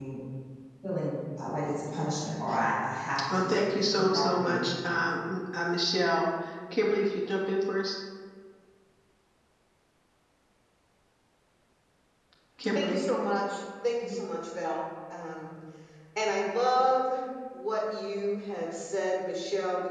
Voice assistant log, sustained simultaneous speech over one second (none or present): present